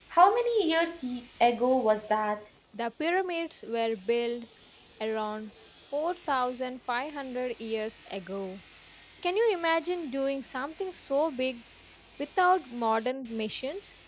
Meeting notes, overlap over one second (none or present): none